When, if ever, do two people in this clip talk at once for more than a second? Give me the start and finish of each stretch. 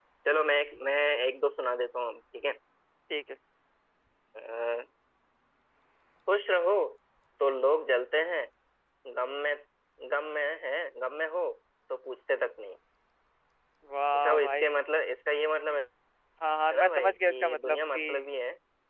16.8-18.0

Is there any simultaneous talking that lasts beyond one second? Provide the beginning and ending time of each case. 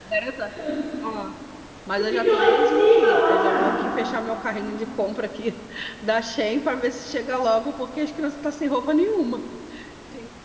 2.0-3.7

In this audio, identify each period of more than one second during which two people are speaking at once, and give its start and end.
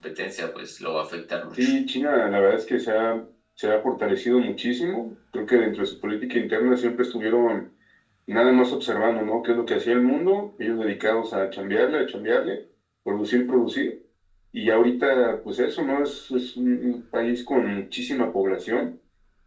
none

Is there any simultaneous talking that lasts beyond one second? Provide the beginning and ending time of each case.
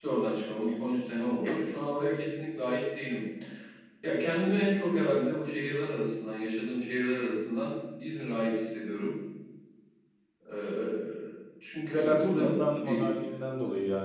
11.9-13.2

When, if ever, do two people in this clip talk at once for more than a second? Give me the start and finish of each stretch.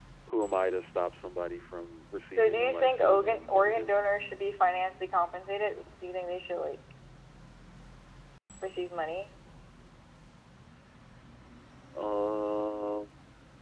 2.3-3.9

